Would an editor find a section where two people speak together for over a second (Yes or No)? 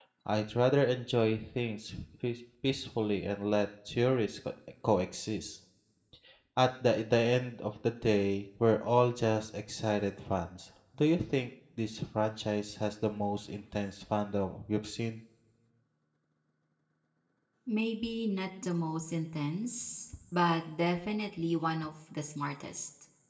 No